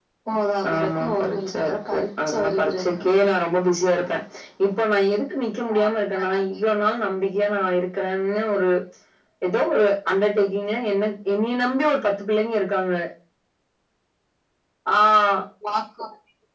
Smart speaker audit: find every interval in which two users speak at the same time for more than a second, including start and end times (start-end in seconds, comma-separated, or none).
0.7-2.9